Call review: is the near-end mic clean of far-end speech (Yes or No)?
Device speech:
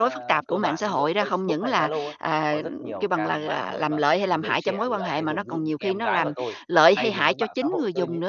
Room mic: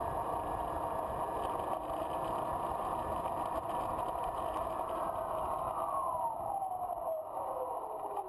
Yes